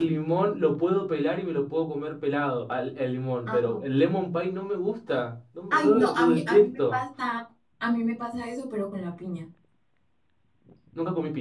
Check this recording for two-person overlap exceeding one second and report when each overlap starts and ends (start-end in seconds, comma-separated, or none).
5.7-7.0